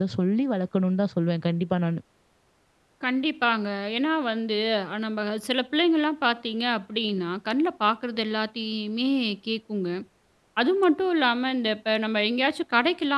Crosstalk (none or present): none